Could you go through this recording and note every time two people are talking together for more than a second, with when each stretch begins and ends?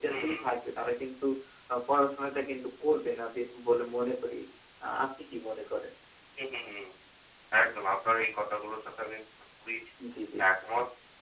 none

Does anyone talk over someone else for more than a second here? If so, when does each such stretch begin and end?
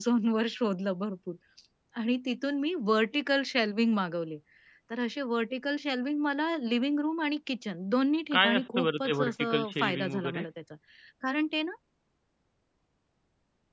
8.3-10.4

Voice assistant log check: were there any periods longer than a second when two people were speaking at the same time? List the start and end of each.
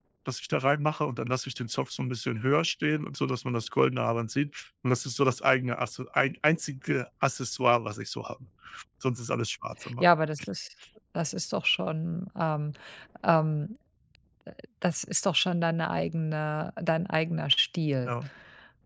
none

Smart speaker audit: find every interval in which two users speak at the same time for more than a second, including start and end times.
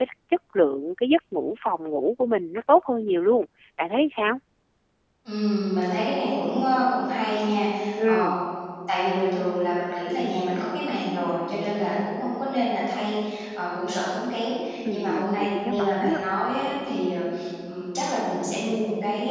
14.9-16.2

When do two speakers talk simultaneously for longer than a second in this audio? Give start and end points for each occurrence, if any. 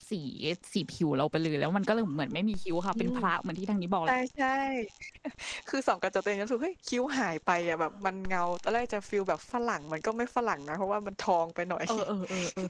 none

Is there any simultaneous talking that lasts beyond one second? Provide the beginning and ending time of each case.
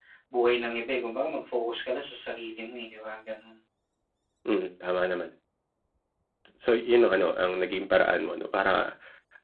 none

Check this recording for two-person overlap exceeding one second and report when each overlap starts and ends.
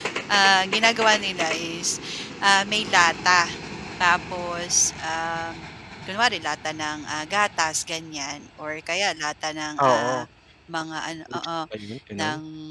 none

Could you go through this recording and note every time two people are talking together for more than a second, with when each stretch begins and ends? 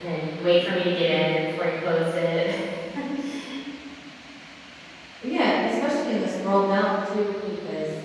none

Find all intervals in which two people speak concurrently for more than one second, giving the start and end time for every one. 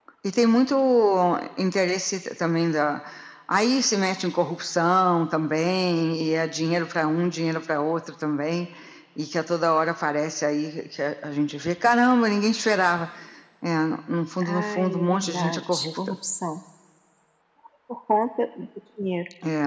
14.5-16.1

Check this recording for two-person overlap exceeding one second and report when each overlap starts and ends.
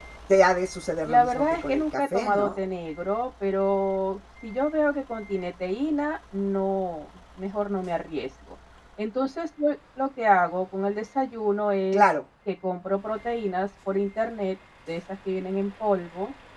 1.1-2.6

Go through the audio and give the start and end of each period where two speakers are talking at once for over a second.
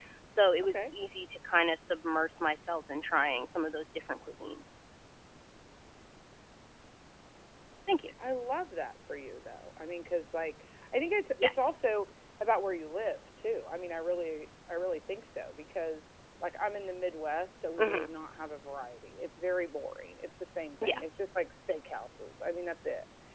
none

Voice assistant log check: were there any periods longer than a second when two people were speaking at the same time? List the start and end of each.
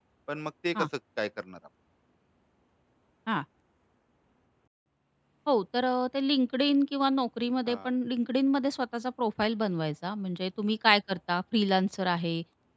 none

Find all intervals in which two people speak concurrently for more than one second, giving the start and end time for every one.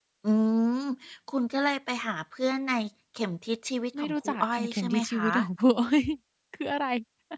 4.0-5.3

